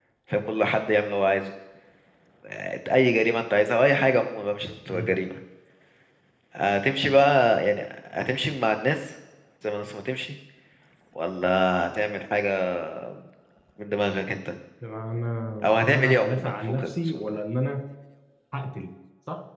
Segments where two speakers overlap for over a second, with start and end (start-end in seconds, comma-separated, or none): 15.7-17.4